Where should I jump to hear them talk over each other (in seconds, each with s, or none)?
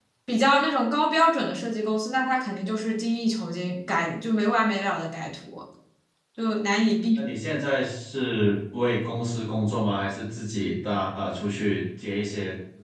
none